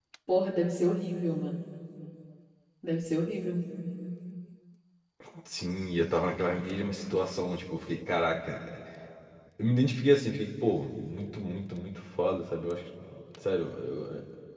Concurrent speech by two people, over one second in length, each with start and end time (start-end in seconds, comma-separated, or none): none